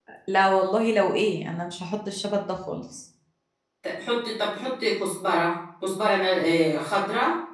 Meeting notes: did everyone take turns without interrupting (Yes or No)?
Yes